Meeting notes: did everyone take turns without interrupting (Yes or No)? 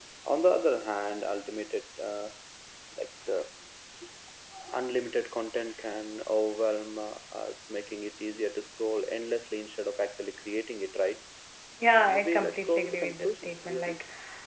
No